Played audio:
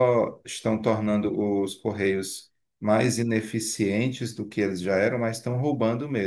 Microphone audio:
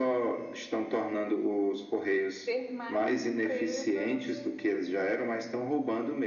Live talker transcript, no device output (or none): ter mais empresas